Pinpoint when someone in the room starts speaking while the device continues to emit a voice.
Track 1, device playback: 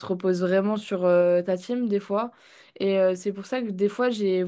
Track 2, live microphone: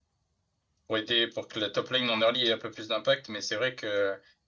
0.9 s

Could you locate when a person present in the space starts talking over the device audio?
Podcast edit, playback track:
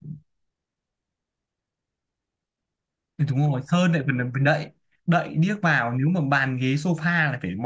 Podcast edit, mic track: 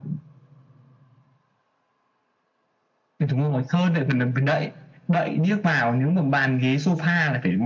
none

